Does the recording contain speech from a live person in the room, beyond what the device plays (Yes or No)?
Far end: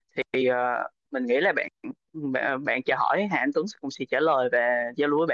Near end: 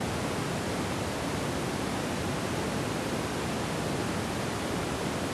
No